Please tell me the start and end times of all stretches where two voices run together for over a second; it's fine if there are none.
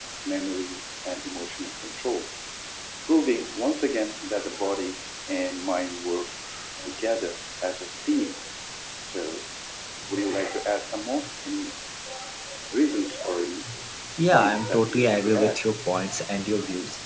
14.3-15.7

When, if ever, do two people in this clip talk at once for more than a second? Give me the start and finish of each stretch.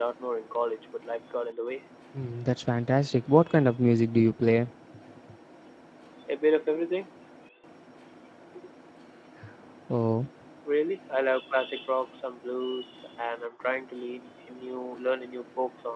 none

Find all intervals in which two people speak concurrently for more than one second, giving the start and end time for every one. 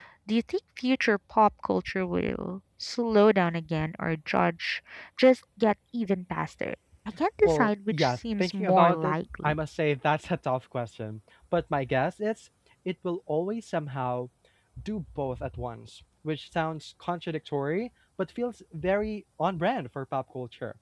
7.4-9.5

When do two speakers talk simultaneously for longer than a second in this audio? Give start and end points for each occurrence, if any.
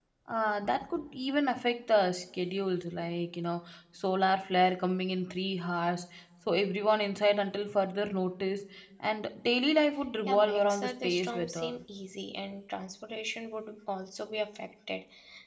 10.3-11.7

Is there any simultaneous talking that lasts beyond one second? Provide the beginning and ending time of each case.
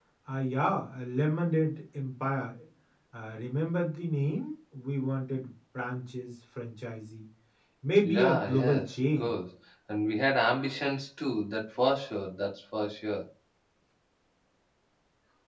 8.0-9.3

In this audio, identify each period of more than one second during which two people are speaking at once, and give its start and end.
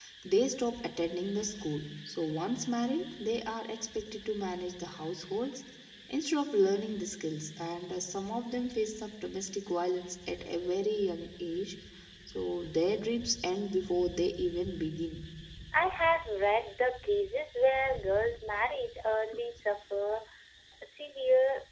none

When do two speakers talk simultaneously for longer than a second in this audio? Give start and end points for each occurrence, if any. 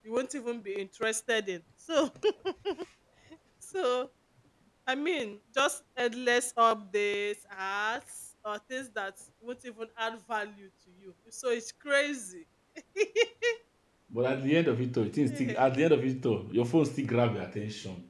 none

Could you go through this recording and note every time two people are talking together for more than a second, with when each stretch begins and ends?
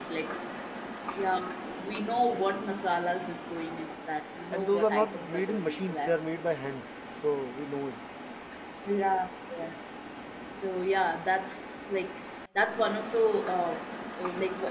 4.5-6.2

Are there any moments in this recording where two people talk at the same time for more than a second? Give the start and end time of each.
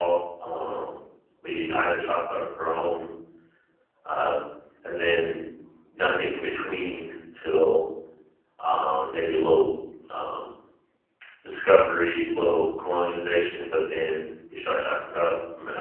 none

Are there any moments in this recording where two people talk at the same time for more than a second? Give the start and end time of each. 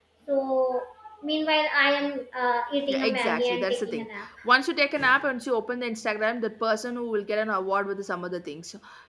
2.9-4.1

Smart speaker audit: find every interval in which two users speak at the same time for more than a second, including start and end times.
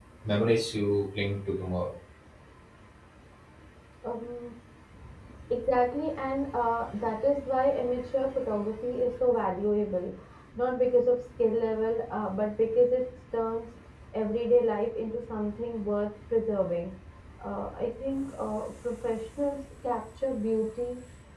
none

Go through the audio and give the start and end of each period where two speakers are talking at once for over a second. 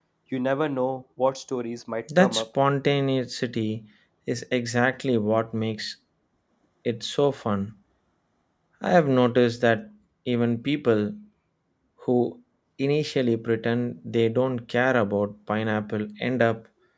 none

